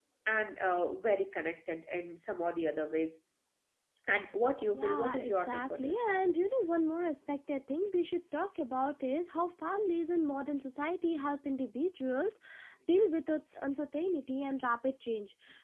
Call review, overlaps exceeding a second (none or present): present